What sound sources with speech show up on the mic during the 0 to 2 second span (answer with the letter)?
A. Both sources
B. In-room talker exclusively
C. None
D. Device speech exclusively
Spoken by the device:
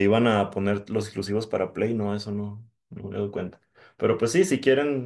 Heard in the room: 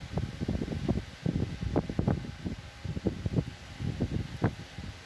C